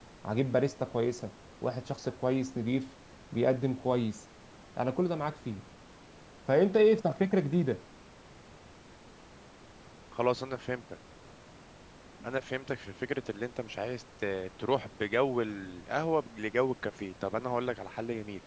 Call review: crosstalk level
none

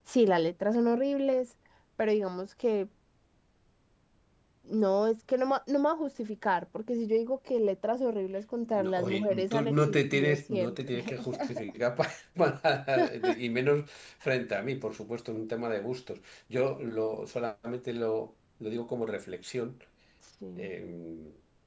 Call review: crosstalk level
present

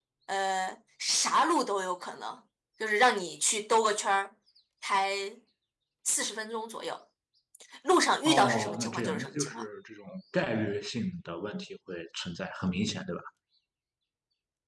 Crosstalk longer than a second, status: present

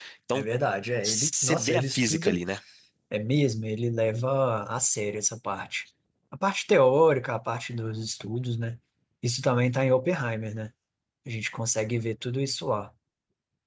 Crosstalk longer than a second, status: present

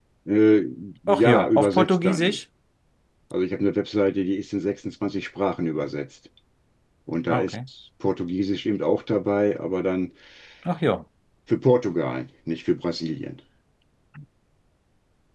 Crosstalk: present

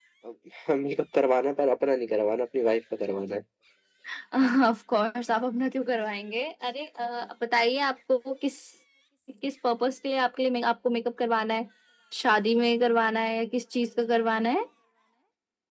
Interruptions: none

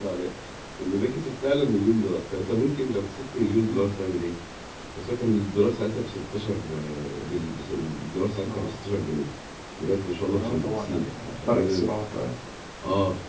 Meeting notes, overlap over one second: present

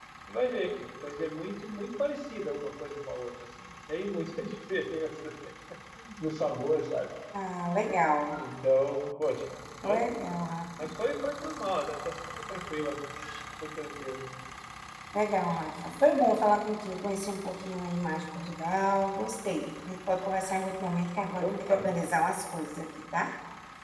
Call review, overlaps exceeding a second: none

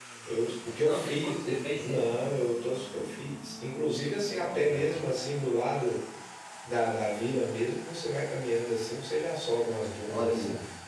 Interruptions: present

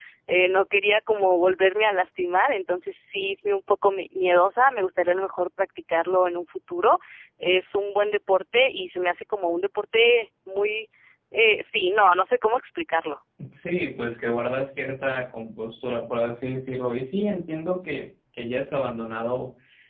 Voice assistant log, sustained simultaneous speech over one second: none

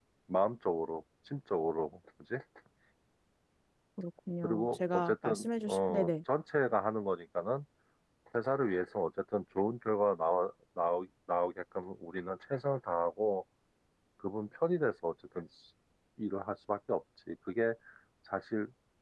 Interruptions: present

